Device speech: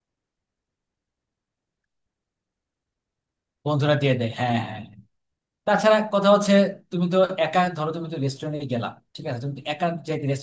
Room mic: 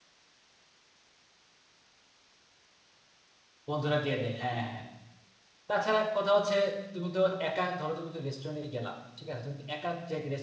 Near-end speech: none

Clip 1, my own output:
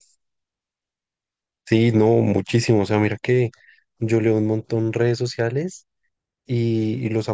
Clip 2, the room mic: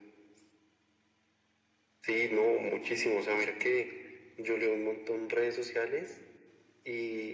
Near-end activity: none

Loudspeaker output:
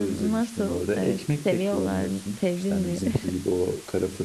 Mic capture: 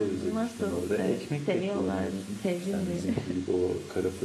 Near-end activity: none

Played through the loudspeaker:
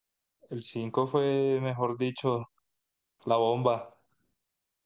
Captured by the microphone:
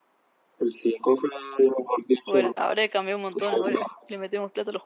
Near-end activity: present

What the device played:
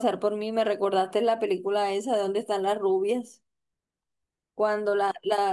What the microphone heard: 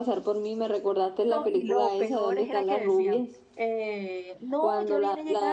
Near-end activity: present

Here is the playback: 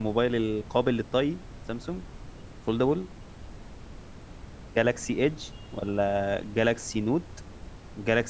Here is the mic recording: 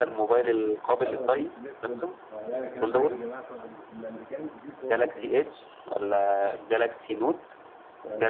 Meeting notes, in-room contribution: present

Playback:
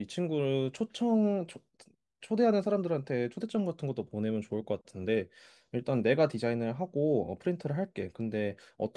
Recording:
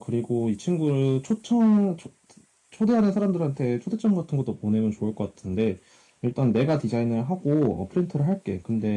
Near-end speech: none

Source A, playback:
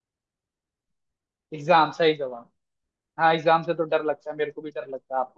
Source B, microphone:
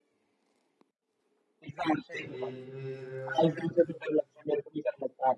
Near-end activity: present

